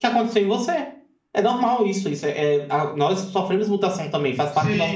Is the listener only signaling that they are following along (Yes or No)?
No